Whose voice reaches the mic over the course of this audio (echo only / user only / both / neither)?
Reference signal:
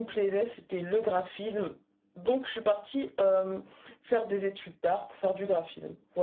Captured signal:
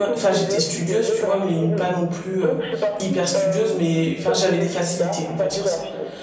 both